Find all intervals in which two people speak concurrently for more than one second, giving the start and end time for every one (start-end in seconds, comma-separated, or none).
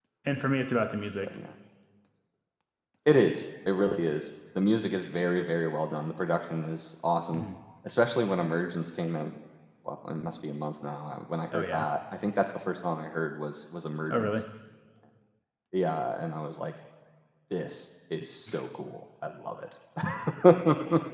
none